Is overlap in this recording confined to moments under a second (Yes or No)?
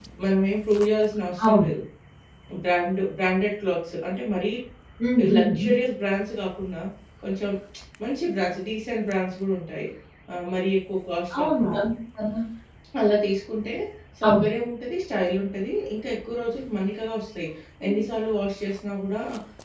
Yes